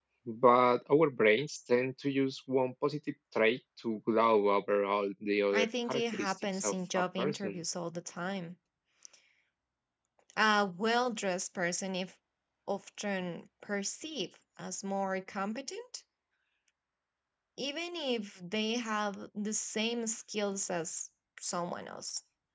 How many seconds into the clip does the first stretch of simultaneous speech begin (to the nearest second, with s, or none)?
6 s